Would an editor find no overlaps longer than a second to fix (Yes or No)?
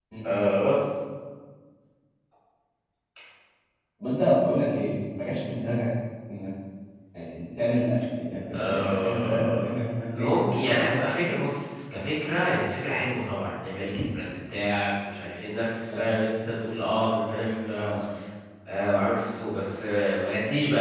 No